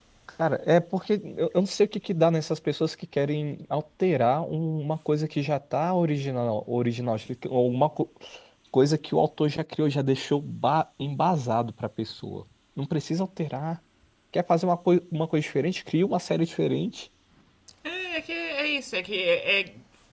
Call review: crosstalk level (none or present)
none